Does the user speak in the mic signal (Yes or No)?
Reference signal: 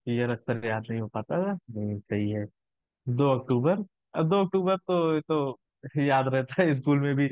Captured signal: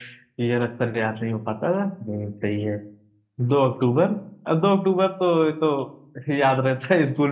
No